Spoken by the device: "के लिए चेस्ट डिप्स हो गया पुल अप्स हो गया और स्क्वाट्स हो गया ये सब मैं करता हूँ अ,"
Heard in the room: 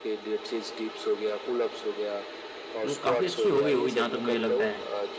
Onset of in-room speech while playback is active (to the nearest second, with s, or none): 3 s